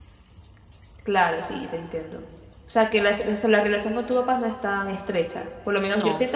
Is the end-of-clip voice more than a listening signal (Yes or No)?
No